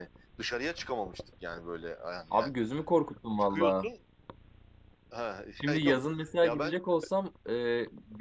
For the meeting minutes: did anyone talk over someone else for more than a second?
No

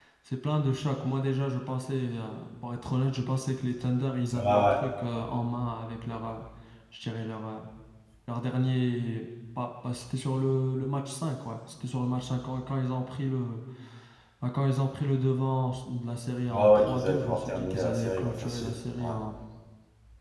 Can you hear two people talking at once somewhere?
Yes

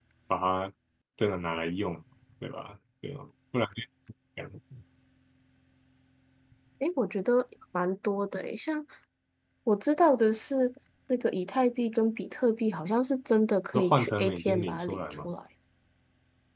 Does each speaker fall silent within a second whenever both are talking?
No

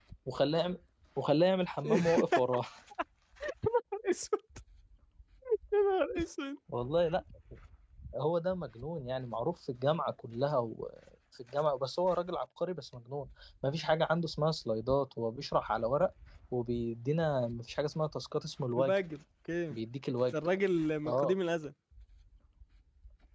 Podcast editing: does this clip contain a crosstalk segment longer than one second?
No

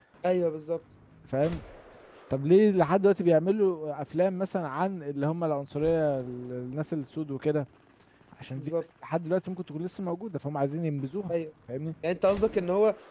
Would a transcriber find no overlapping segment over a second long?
Yes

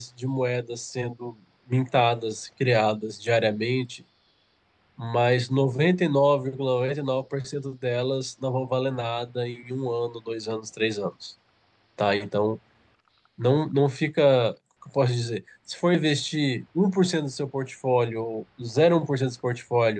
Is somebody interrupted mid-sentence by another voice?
No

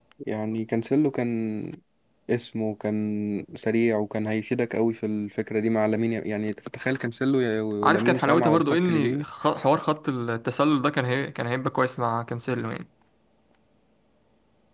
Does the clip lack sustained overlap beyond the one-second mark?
No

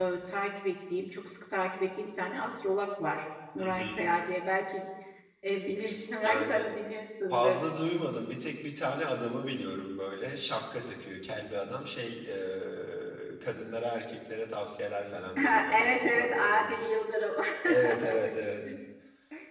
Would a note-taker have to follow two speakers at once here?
Yes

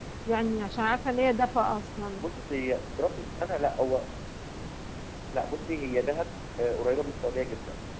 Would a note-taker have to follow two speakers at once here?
No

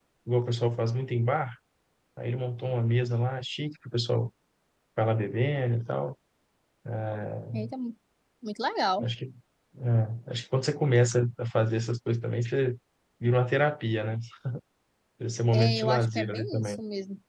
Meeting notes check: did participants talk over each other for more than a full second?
Yes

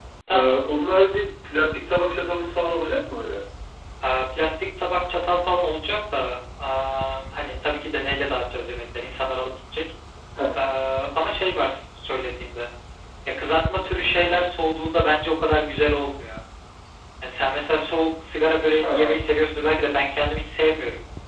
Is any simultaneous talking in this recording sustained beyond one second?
No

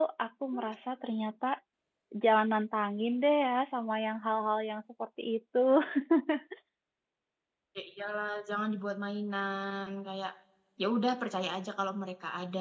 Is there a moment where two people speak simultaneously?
No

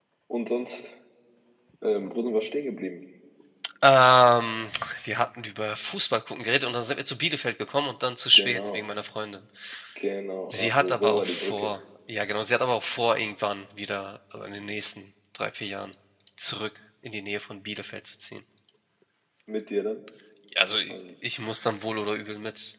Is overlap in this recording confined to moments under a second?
No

